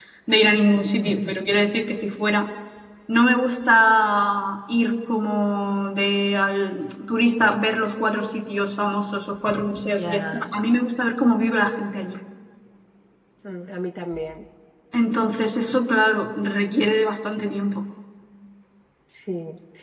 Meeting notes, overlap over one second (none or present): none